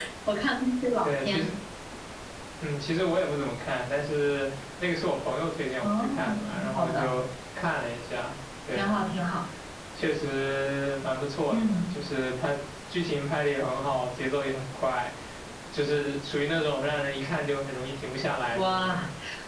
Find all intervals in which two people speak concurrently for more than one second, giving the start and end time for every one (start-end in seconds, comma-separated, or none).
5.8-7.1